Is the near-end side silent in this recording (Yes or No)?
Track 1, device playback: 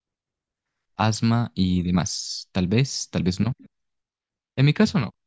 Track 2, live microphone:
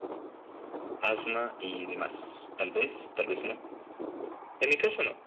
Yes